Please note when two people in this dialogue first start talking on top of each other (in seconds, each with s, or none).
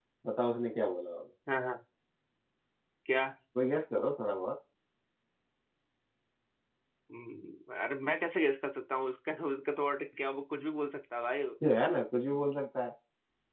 none